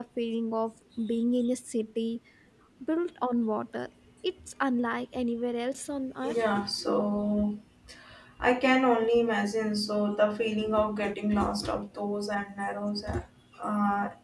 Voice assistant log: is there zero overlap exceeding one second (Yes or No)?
Yes